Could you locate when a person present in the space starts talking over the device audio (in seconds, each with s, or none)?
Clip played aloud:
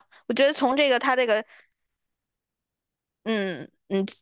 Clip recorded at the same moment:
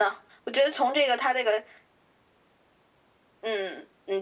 none